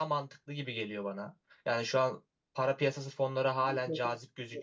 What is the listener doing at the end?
taking over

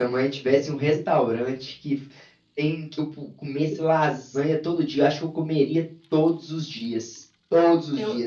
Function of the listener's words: listening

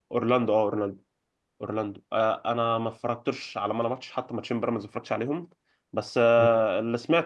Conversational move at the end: listening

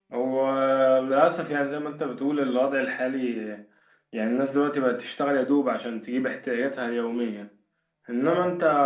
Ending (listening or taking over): listening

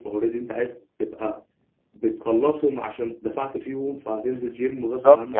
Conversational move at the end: taking over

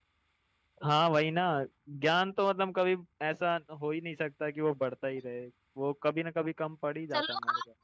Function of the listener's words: taking over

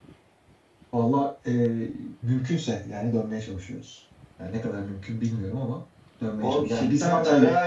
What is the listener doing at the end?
taking over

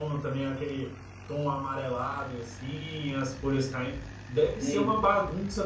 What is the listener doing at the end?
listening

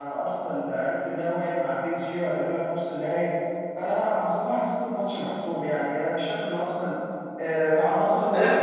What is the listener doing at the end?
taking over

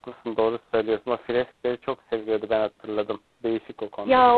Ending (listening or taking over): taking over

